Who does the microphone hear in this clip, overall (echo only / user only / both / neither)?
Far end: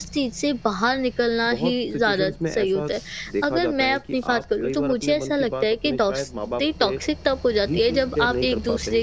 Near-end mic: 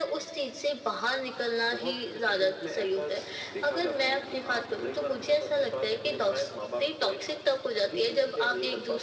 echo only